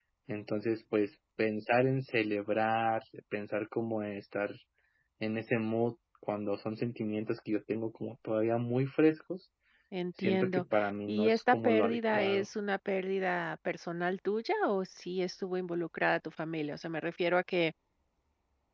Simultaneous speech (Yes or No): Yes